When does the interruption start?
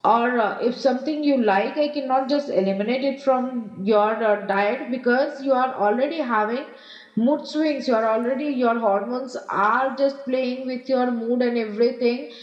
none

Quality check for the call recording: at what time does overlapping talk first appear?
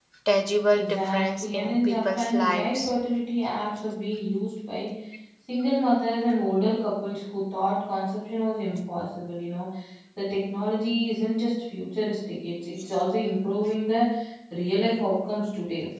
0.7 s

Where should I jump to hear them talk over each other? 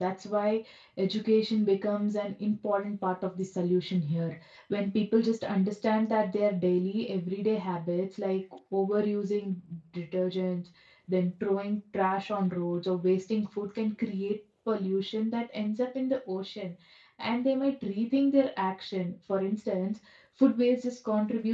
none

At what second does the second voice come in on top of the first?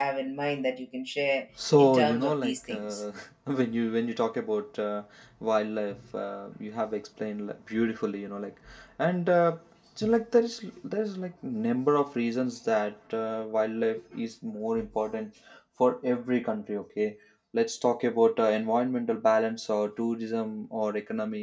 1.6 s

